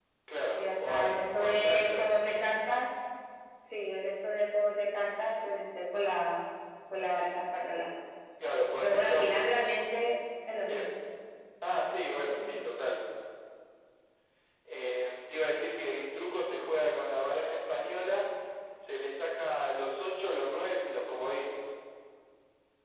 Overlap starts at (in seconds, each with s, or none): 0.6 s